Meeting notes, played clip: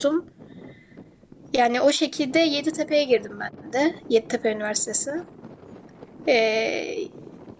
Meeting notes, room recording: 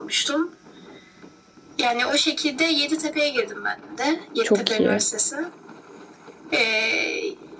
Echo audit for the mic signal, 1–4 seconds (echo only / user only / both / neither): echo only